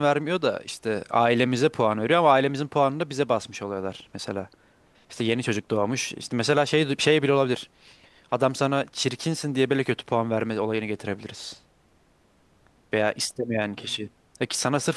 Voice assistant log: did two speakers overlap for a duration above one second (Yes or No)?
No